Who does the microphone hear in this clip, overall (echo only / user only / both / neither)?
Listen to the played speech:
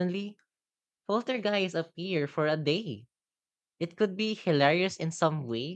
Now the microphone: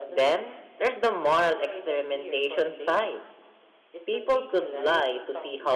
both